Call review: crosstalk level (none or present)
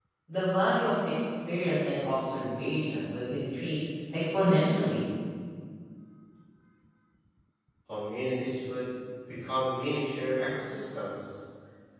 none